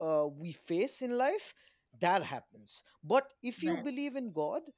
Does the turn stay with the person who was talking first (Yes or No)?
Yes